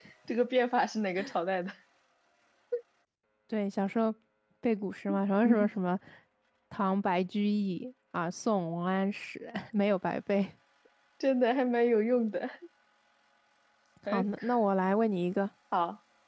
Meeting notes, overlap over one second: none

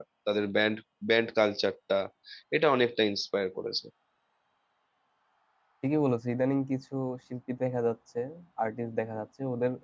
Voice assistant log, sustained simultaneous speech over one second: none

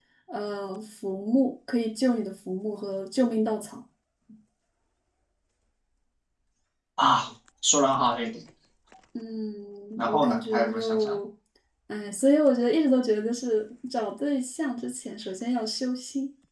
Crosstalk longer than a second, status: present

